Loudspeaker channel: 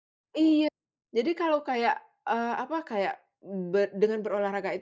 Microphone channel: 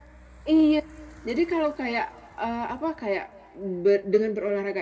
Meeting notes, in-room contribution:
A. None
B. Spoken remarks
A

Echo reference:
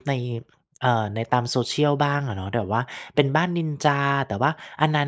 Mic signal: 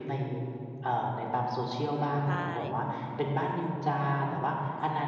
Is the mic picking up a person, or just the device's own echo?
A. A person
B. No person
A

